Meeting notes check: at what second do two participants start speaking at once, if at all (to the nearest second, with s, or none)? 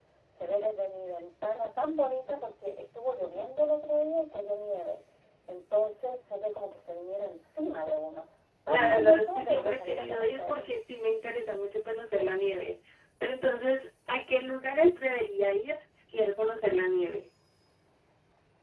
9 s